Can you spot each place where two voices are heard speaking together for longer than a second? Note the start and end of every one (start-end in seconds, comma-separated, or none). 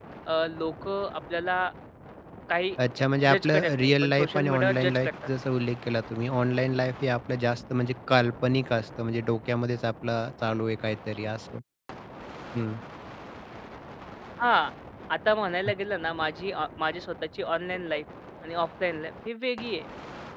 3.3-5.1